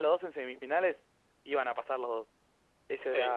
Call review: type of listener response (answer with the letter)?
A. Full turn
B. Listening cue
A